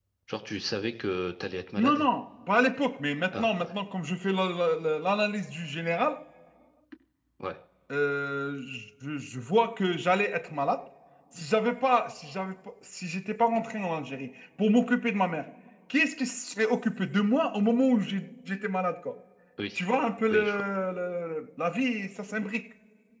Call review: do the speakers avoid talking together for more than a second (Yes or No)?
Yes